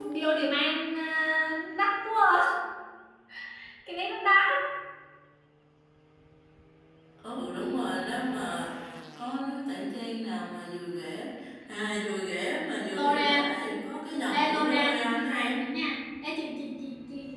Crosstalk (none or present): present